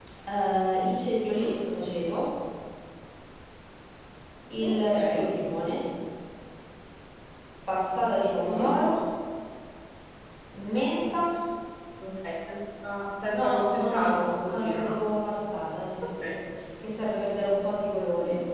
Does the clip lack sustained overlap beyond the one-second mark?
No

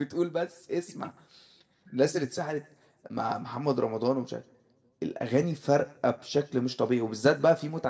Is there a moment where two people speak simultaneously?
No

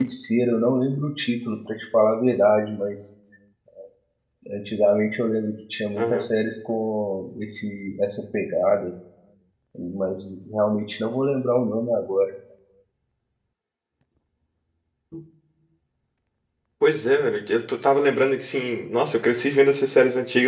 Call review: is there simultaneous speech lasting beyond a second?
No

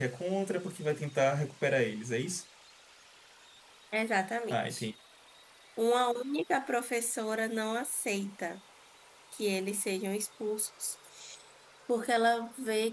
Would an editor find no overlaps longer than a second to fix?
Yes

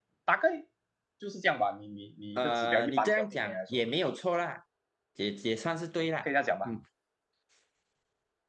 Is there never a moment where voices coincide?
No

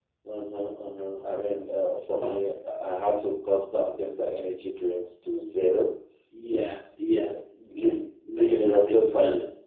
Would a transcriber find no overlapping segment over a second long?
No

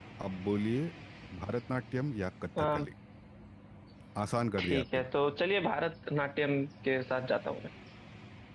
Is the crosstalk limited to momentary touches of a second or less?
Yes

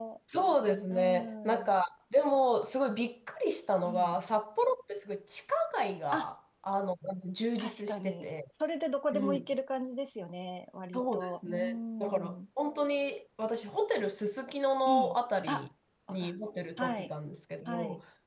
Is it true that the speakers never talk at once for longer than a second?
No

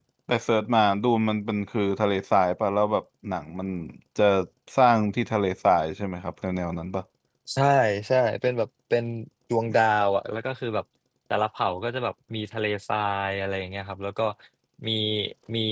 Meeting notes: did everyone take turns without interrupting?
Yes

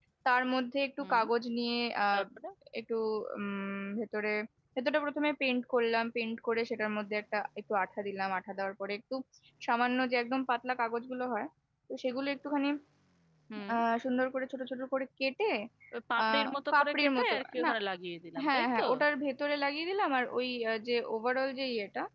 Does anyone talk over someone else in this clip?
Yes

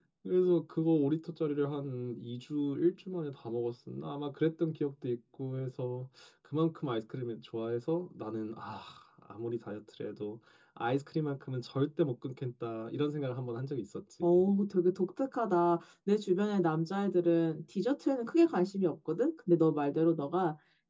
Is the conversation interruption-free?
Yes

